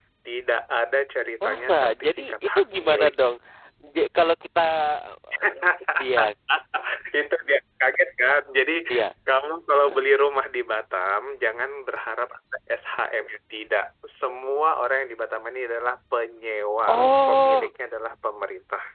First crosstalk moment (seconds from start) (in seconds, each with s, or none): 1.4 s